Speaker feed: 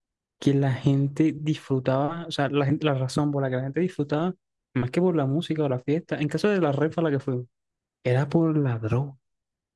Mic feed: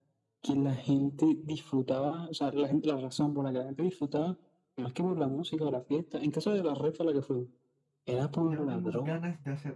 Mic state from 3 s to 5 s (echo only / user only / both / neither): echo only